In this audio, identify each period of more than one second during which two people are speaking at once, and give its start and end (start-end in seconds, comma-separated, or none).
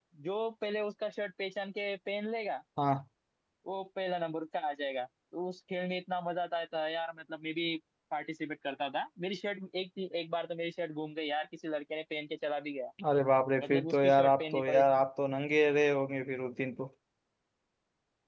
13.6-15.0